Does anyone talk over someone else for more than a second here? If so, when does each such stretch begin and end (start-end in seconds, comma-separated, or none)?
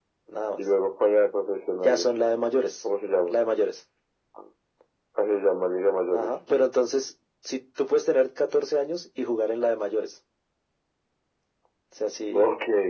none